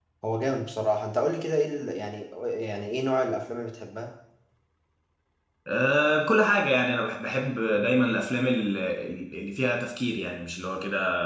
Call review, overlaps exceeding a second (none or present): none